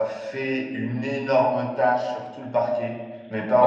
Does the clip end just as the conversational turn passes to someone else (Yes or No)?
No